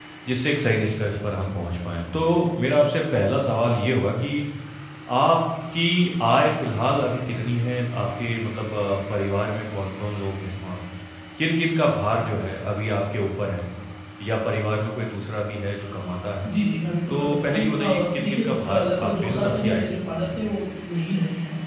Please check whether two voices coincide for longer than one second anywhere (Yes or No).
Yes